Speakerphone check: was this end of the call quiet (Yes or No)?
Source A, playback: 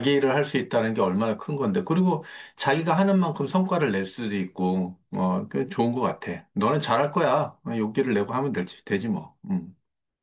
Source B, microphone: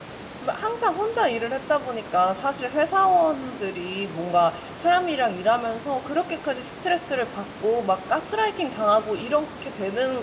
No